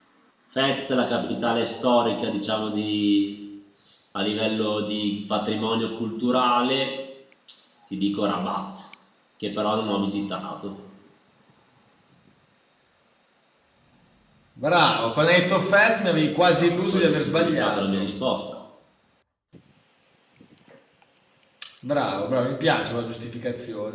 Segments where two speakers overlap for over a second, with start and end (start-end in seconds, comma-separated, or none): 16.6-18.1